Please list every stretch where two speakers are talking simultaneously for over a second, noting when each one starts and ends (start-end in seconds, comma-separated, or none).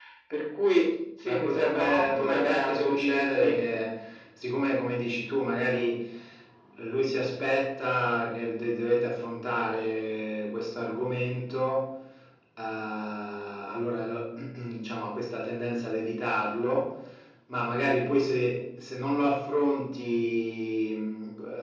1.2-3.5